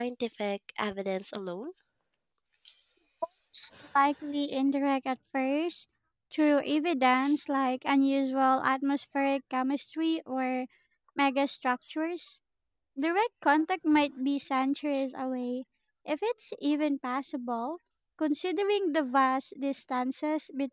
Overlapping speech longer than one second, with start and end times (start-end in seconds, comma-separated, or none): none